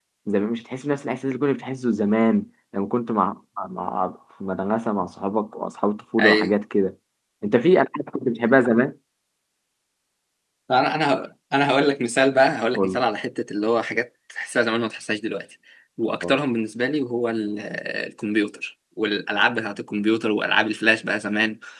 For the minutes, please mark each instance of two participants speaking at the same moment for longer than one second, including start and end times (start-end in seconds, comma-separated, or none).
none